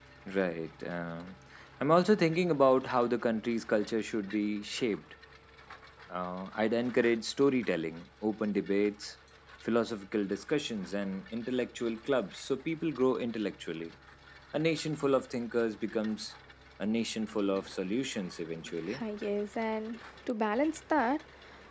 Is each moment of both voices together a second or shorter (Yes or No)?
Yes